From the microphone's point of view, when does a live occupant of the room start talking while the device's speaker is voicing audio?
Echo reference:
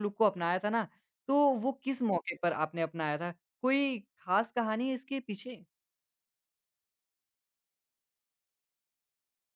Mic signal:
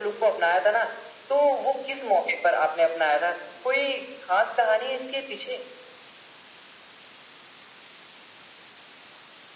none

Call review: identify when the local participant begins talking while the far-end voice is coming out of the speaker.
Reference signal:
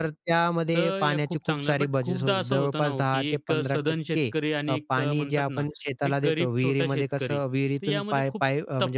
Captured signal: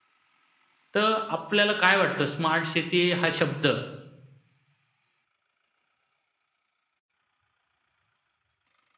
0.9 s

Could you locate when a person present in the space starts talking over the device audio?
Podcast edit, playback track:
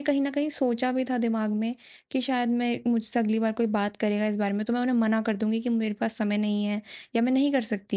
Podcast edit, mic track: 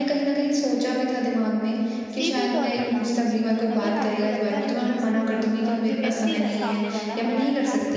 2.1 s

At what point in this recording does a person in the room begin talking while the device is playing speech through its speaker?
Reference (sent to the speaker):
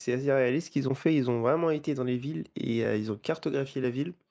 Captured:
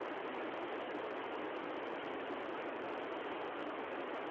none

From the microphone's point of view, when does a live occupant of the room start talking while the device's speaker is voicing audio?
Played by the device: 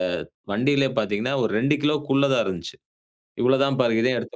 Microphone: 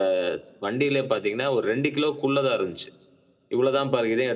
none

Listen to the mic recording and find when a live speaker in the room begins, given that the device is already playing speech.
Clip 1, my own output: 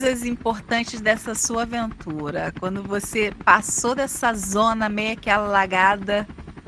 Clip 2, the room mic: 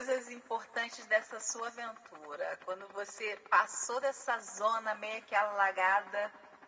none

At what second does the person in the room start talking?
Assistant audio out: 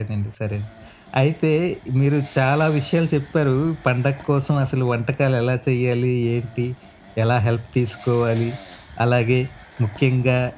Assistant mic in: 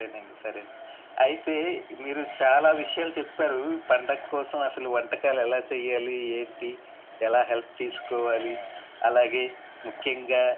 none

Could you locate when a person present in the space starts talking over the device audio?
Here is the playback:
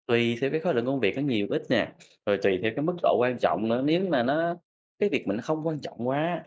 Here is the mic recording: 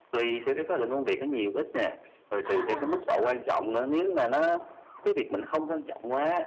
2.4 s

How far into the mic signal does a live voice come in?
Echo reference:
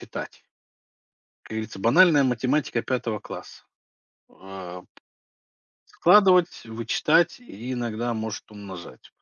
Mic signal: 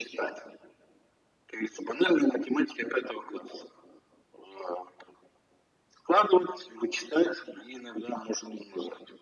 none

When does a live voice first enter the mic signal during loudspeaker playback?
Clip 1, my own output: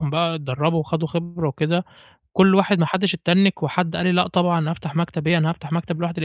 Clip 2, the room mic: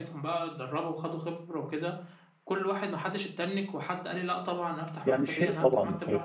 5.0 s

